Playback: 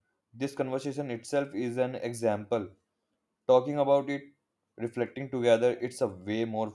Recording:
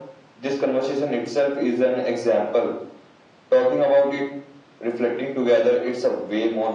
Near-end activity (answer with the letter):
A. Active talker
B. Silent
B